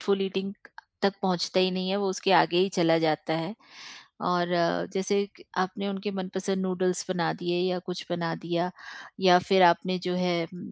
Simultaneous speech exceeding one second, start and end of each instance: none

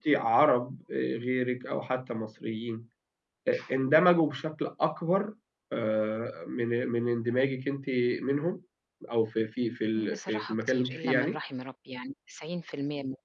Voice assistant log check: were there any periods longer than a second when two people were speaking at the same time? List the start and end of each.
10.1-11.4

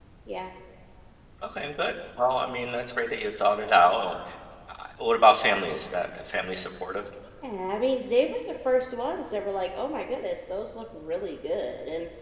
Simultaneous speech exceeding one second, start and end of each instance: none

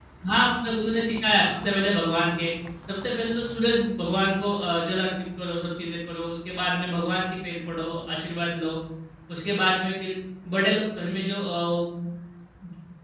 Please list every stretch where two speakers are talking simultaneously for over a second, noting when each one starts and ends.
none

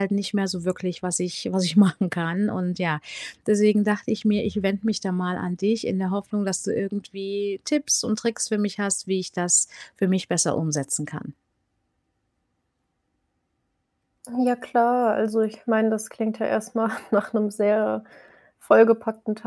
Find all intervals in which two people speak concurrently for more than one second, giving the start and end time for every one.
none

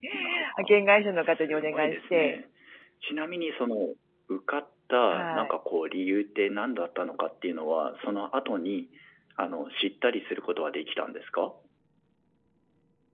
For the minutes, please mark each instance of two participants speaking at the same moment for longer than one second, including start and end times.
1.1-2.4

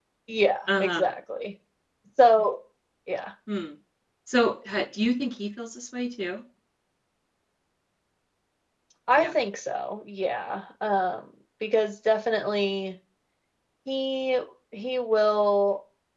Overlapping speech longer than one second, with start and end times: none

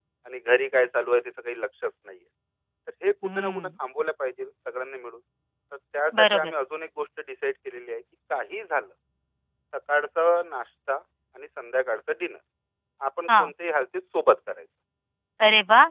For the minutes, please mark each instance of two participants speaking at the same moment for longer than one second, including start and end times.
none

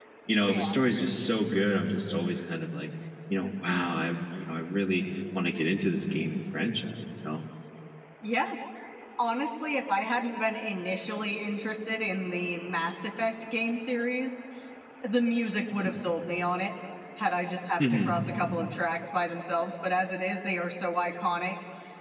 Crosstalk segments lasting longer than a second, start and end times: none

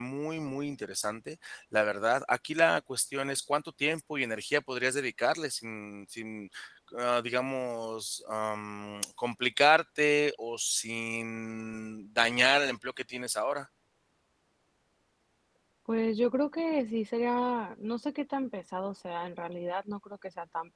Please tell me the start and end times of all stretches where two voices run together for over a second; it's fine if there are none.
none

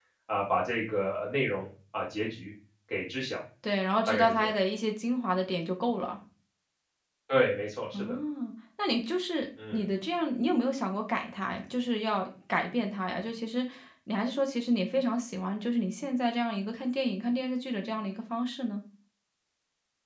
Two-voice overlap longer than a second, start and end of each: none

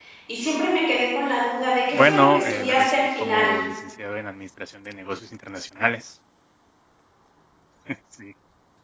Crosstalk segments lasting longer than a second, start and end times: 1.9-3.5

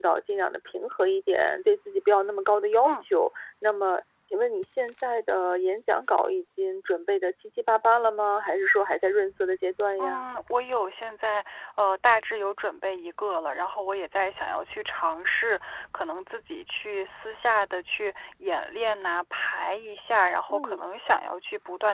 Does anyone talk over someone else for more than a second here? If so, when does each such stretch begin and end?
none

